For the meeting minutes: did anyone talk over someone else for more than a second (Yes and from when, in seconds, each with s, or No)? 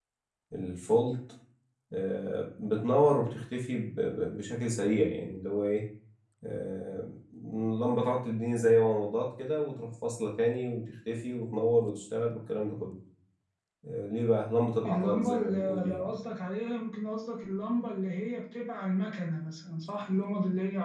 Yes, from 14.8 s